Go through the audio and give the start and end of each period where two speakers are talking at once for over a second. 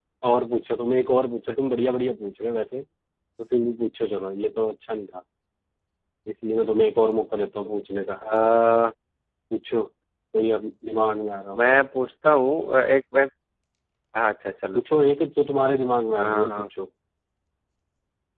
none

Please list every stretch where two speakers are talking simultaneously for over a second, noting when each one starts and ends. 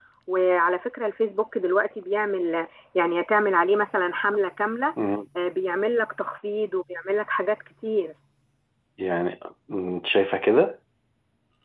none

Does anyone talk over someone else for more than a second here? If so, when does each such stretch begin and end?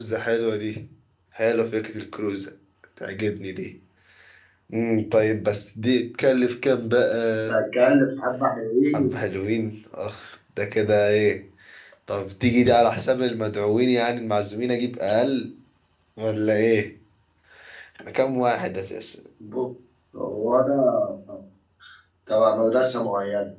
none

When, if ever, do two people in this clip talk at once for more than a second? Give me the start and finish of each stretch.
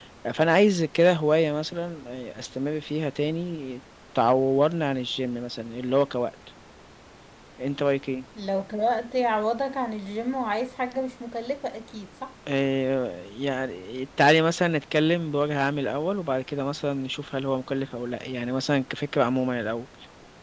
none

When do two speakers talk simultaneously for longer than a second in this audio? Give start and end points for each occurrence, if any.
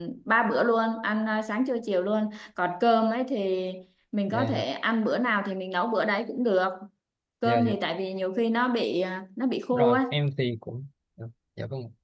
none

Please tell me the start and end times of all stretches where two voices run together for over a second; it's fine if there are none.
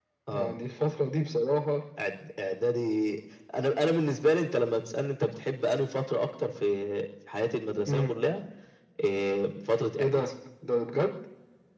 none

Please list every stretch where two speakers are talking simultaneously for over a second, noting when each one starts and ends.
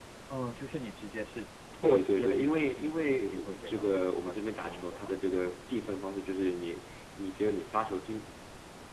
1.8-5.1

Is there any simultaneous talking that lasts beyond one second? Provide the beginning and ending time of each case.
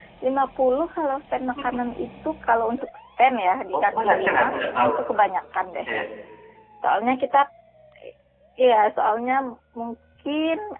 3.7-4.9

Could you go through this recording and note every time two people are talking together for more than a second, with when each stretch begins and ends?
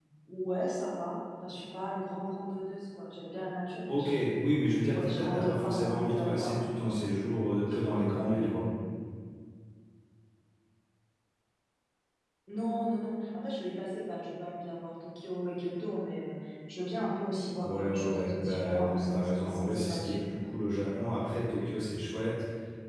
4.9-6.6, 17.6-20.2

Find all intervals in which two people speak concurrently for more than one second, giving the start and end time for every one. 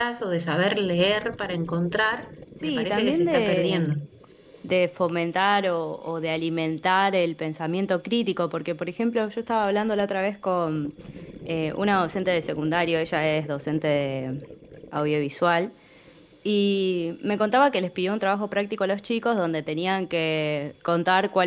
2.6-3.9

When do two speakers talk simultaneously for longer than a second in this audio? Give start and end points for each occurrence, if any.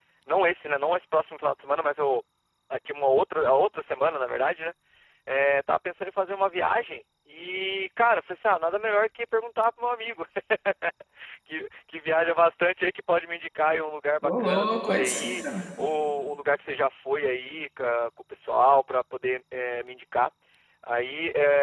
14.2-15.6

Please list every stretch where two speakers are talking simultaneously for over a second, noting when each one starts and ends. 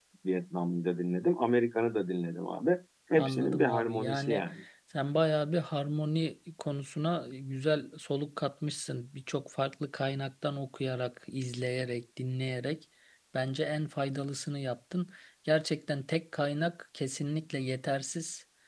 3.1-4.4

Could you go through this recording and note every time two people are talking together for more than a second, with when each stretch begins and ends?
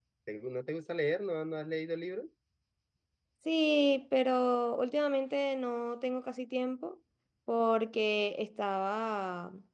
none

